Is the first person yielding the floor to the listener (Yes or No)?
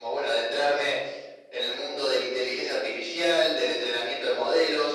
No